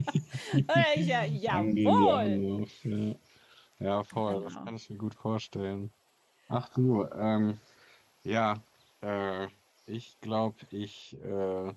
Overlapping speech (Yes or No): Yes